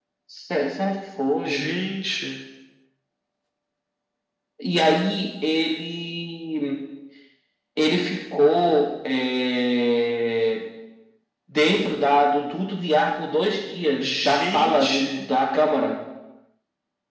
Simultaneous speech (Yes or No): Yes